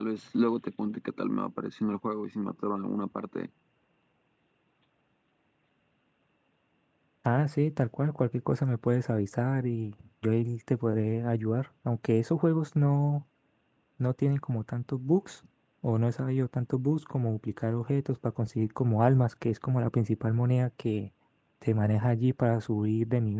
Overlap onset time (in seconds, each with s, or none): none